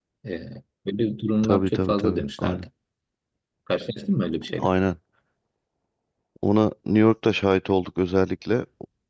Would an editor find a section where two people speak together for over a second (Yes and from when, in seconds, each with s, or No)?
Yes, from 1.4 s